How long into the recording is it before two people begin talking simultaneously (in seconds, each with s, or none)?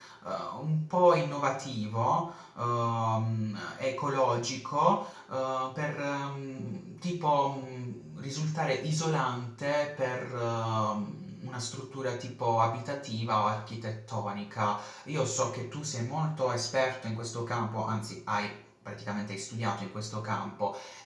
none